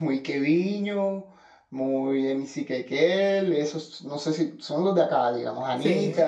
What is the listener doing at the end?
listening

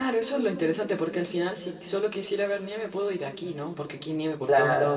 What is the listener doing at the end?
listening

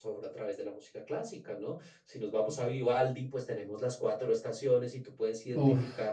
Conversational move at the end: listening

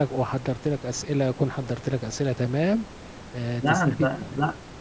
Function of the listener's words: taking over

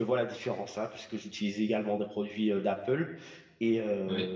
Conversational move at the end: listening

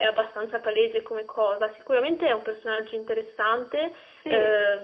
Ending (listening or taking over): listening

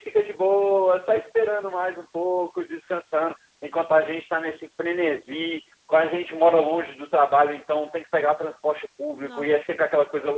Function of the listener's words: listening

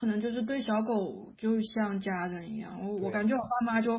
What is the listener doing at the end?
listening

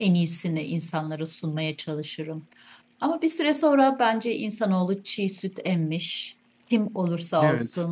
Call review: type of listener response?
listening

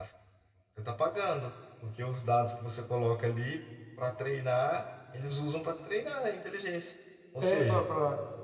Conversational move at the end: taking over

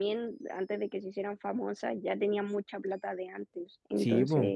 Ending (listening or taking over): taking over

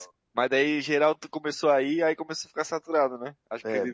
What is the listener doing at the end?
taking over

